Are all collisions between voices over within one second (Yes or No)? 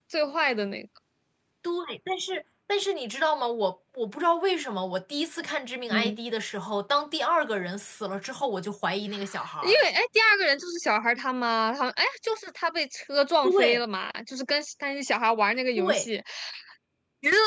Yes